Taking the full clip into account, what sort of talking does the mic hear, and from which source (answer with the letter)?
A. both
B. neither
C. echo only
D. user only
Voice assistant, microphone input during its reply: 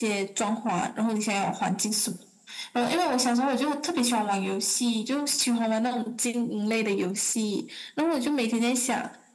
C